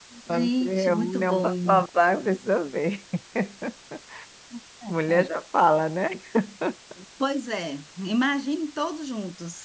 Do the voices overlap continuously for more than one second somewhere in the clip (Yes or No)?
Yes